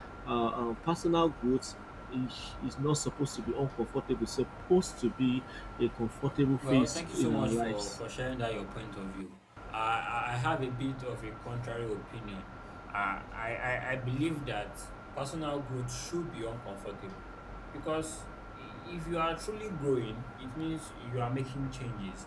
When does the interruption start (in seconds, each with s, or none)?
6.6 s